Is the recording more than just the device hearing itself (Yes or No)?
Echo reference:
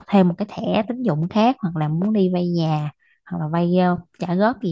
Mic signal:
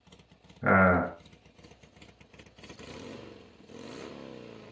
Yes